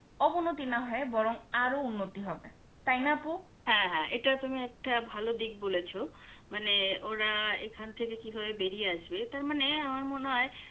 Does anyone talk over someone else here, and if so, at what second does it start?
none

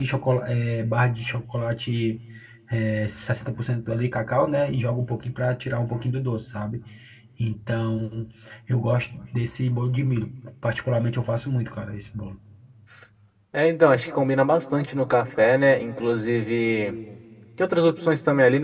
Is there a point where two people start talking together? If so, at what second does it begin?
none

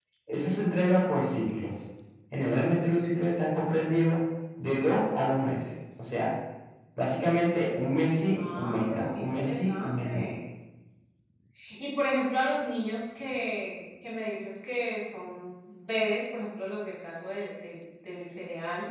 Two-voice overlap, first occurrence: 8.4 s

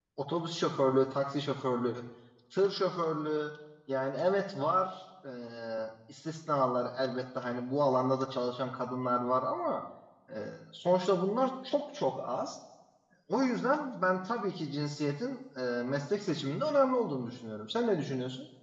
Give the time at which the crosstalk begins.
none

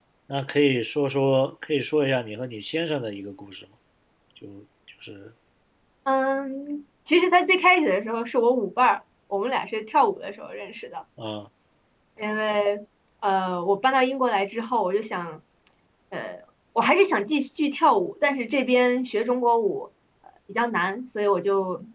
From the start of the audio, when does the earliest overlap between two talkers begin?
none

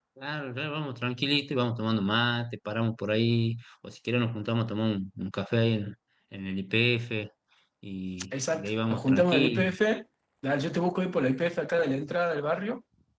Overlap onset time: 8.5 s

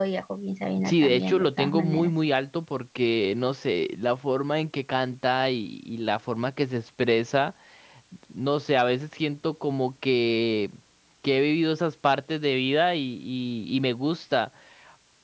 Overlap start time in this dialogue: 0.8 s

